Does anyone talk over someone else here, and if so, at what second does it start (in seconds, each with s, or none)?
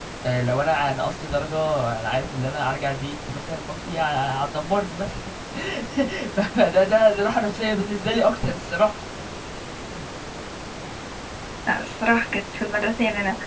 none